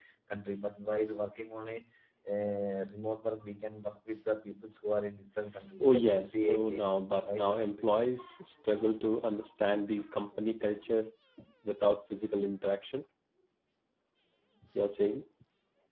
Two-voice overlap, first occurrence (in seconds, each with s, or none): 5.8 s